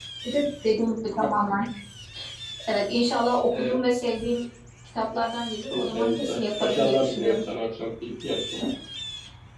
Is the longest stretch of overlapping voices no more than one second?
No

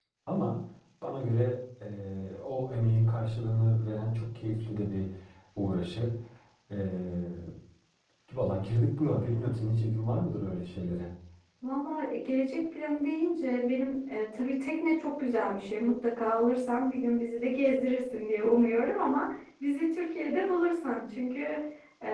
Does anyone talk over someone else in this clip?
No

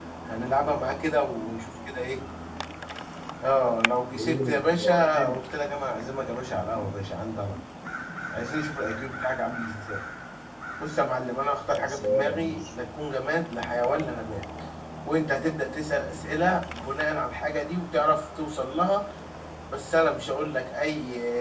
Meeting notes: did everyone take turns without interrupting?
No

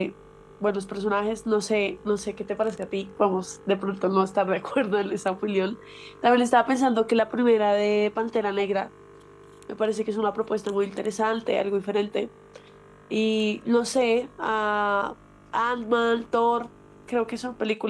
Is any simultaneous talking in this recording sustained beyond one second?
No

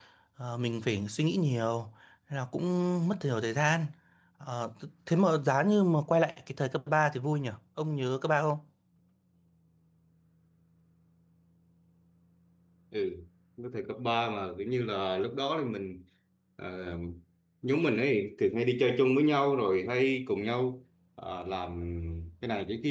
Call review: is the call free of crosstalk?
Yes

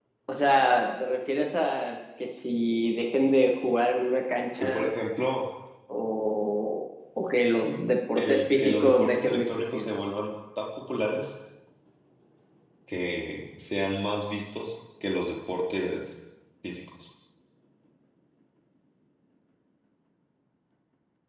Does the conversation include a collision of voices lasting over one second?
Yes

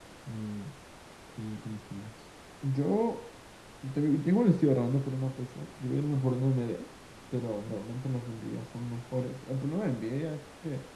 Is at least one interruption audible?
No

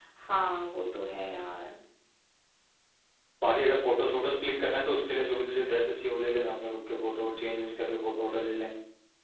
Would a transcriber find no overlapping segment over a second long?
Yes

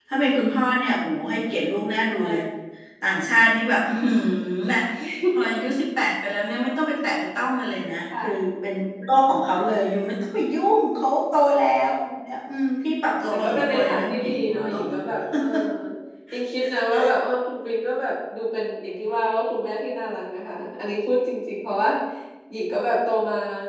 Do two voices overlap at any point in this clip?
Yes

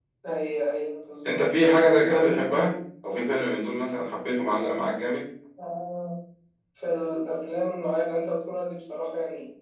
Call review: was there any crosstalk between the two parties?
Yes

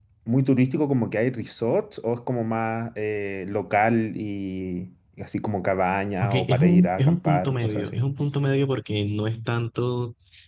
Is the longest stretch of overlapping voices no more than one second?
No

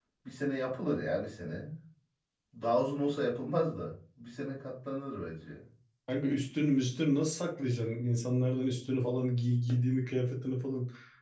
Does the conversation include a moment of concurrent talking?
No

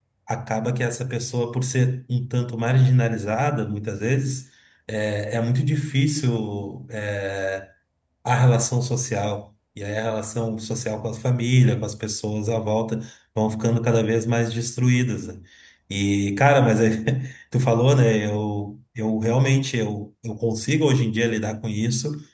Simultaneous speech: No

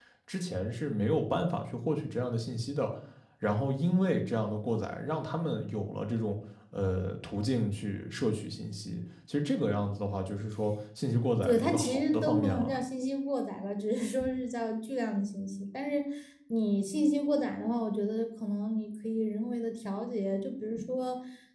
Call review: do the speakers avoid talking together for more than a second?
No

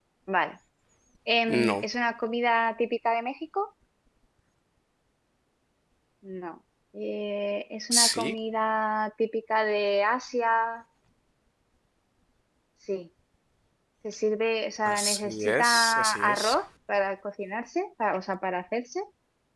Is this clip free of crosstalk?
No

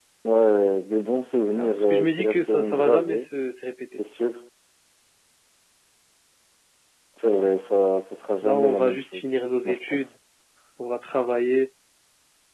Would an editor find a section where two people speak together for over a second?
Yes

